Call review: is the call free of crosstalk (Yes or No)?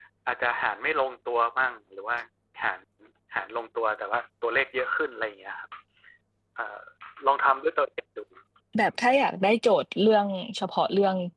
Yes